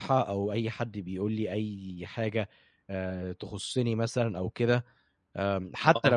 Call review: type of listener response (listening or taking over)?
listening